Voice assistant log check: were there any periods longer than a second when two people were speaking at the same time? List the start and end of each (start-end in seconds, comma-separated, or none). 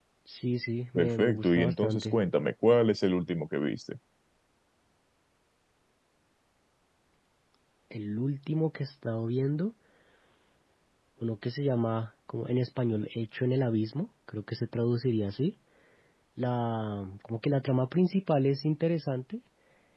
1.0-2.2